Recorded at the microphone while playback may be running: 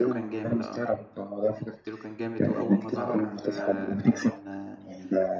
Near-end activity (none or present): present